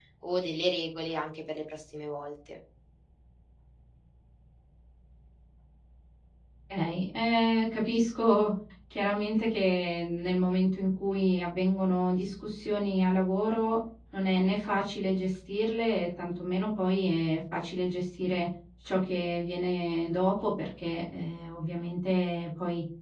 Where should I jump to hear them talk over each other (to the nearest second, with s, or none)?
none